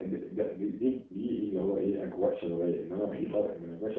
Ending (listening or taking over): listening